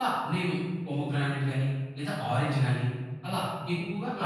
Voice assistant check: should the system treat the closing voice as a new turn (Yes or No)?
Yes